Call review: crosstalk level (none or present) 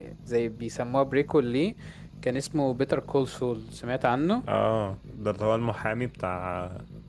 none